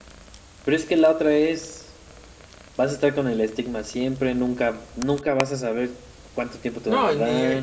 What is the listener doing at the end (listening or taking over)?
taking over